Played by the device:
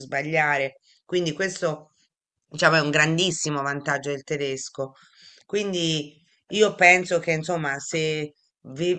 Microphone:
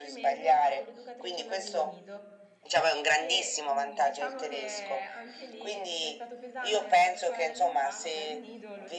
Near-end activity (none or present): present